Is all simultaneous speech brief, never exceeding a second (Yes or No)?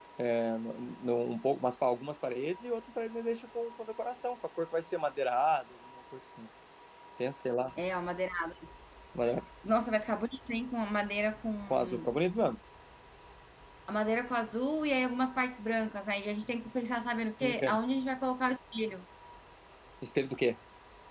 Yes